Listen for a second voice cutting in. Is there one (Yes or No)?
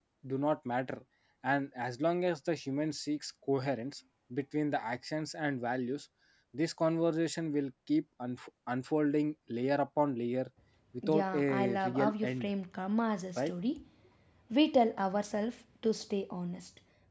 Yes